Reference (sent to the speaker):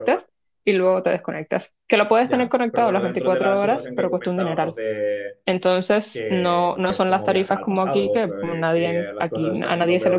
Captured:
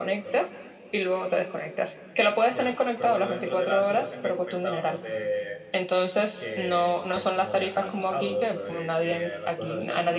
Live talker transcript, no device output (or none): none